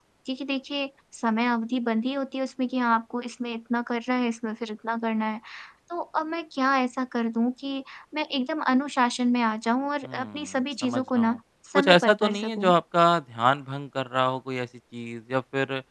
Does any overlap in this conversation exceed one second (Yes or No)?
Yes